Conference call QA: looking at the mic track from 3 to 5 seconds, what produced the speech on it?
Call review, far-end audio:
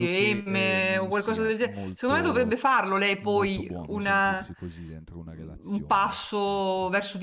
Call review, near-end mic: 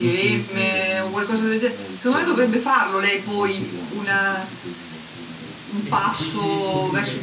echo only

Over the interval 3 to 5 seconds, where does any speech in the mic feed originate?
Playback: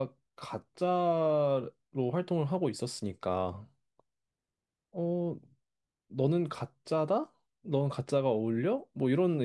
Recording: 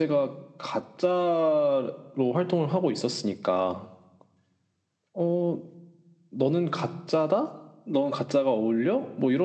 echo only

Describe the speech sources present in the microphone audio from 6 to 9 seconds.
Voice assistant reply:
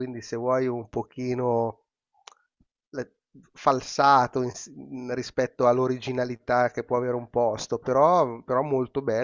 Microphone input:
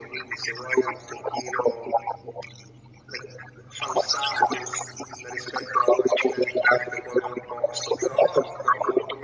echo only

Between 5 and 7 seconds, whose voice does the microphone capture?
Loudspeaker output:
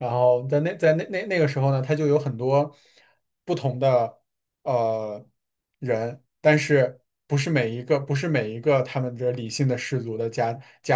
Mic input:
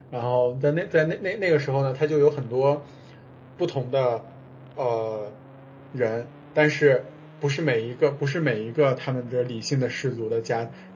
echo only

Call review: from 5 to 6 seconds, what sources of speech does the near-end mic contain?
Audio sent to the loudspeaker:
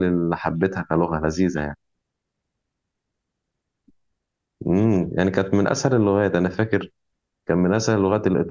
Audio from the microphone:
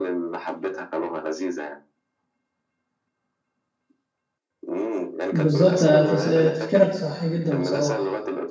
both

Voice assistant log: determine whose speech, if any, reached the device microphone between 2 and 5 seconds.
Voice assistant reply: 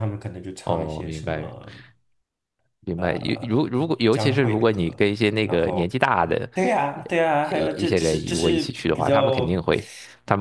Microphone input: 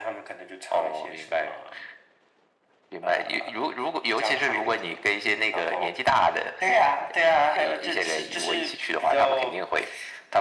echo only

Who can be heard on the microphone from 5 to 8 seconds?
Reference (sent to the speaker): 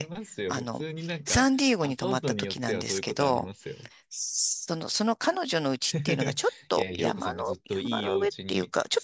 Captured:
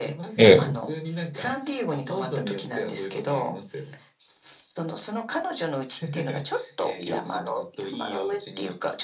echo only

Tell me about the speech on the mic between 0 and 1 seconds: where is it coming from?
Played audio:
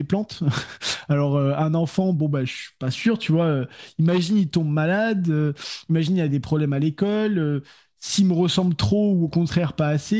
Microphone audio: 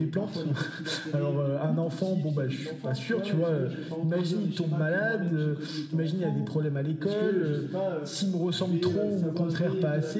both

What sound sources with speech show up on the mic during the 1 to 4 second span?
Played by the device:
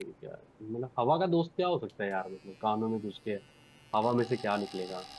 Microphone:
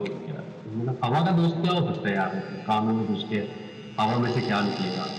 echo only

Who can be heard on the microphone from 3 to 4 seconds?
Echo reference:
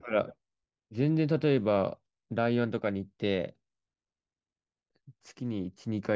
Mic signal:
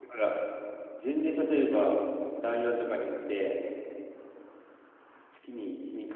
echo only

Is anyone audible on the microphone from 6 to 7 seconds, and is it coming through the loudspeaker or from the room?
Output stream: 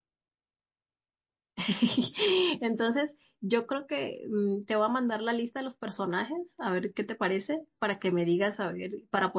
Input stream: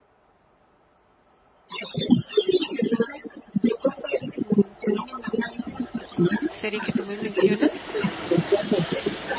both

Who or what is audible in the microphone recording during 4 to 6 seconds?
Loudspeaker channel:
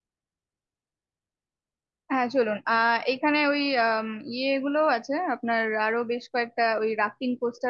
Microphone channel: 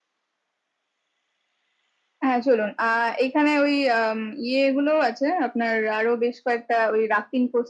echo only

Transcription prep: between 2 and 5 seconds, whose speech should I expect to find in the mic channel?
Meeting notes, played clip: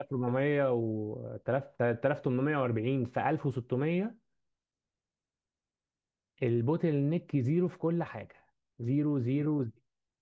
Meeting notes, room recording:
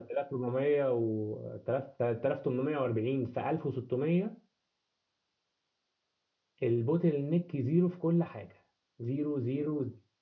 echo only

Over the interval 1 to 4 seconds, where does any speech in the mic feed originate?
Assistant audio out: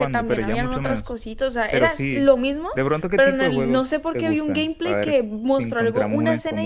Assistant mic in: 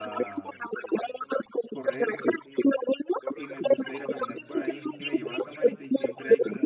both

